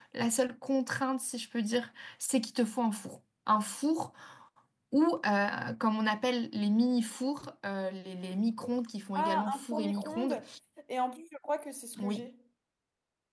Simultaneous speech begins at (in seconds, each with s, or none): 9.2 s